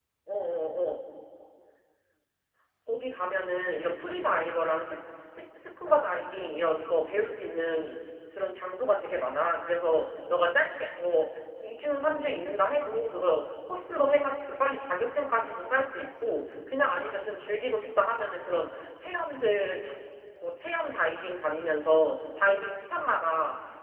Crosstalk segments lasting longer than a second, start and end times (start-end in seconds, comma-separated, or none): none